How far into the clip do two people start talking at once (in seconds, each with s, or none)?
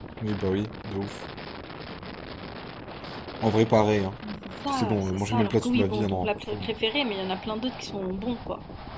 4.7 s